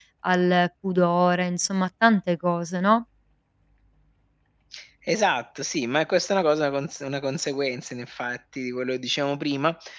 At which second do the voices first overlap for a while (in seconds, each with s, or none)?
none